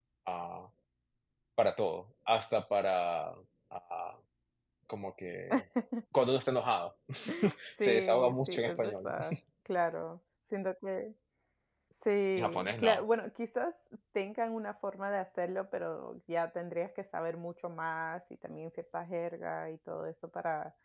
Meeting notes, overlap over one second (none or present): present